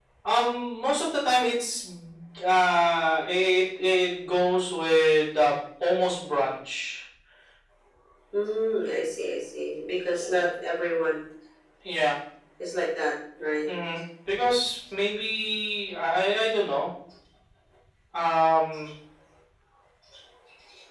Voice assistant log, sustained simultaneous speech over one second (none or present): none